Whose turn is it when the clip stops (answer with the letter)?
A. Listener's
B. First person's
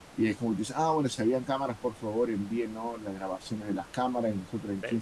B